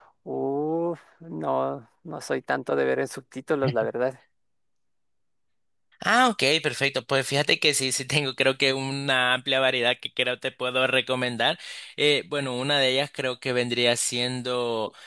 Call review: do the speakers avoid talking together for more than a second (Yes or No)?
Yes